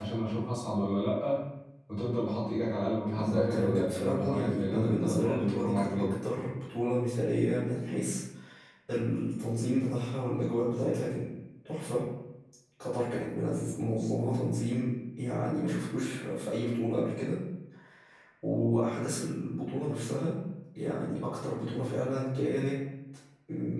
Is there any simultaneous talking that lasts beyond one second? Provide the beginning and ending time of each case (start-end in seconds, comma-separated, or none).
3.2-6.1